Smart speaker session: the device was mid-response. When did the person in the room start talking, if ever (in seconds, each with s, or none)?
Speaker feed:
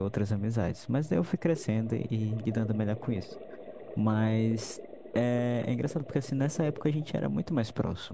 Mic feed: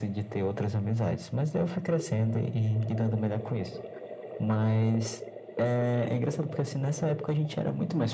none